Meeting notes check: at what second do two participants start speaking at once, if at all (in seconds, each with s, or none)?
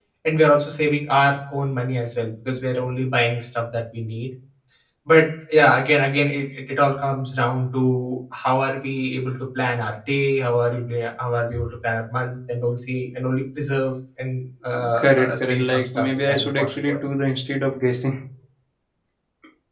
14.8 s